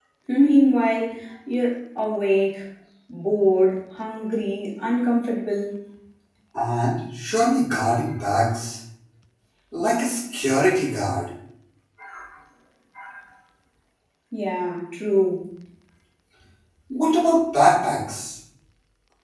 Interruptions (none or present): none